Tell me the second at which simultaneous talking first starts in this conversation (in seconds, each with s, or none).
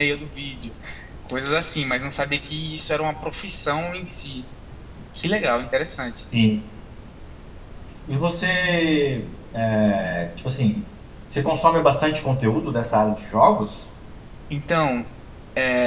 none